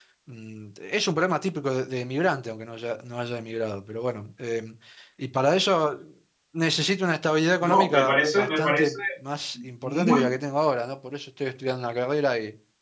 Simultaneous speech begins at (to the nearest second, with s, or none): 8 s